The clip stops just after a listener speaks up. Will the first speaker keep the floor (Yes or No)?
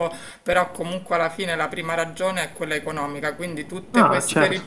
Yes